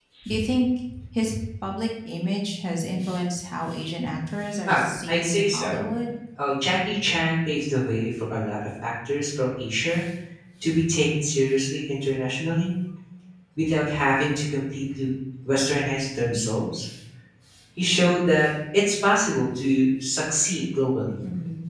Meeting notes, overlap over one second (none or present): present